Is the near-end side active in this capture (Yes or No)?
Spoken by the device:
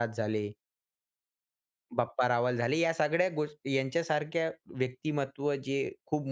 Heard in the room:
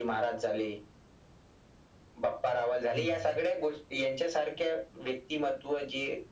Yes